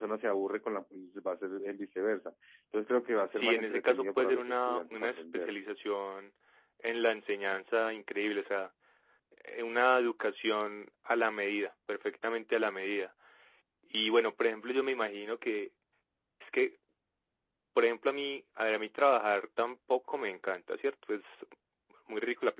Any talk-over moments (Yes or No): Yes